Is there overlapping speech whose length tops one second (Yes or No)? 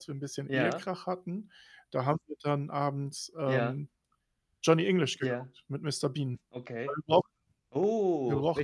No